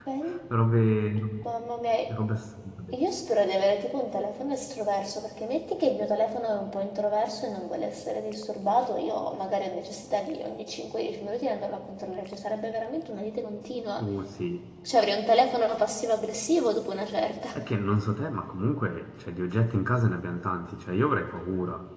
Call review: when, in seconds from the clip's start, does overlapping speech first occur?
none

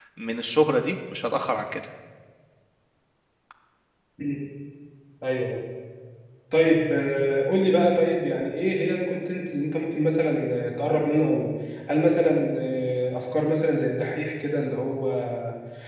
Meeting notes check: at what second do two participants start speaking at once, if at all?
none

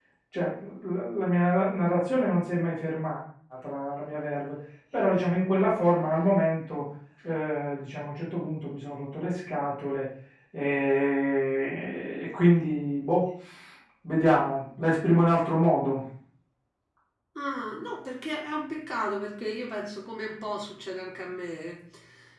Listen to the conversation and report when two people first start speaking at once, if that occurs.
none

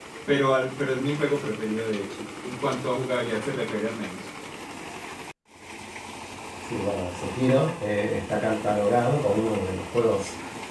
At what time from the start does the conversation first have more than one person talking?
none

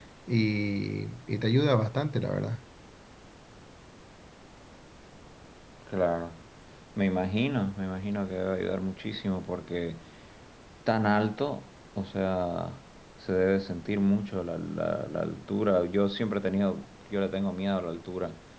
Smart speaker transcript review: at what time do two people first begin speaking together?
none

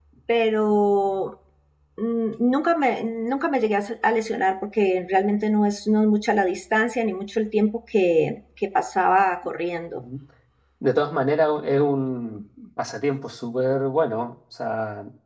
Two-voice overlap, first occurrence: none

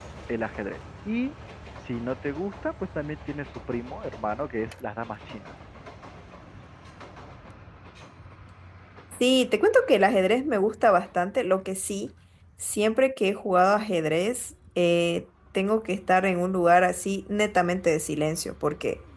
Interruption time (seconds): none

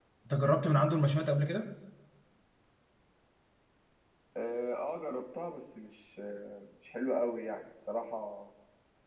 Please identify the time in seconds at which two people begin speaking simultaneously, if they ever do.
none

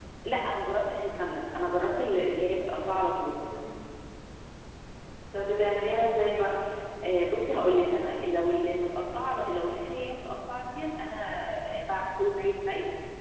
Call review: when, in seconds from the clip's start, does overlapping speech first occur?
none

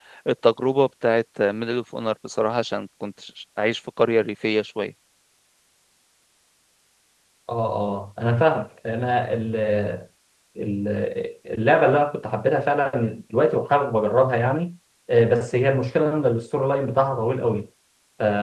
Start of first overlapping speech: none

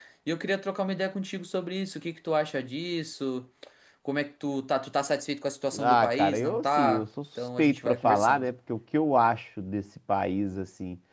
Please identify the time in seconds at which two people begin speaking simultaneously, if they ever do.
6 s

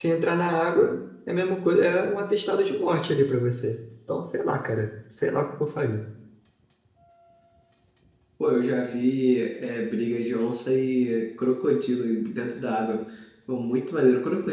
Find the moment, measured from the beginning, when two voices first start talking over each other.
none

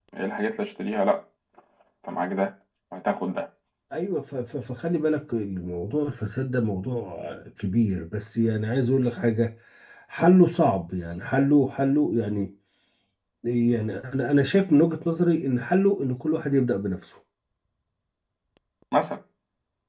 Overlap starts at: none

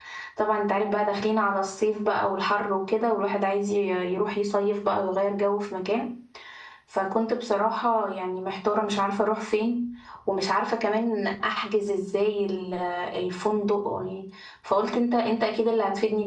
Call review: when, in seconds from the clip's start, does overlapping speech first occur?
none

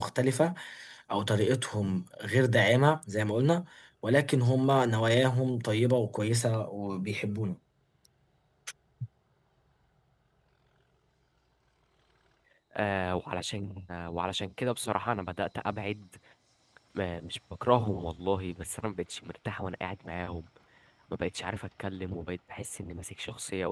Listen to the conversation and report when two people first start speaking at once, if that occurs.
none

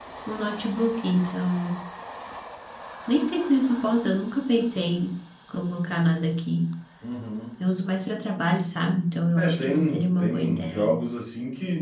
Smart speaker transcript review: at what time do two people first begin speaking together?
9 s

